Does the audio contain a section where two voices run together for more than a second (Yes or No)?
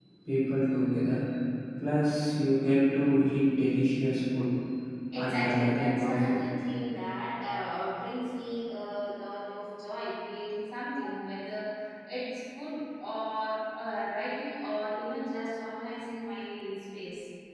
Yes